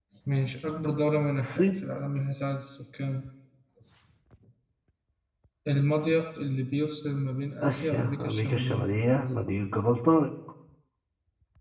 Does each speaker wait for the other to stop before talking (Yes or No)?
No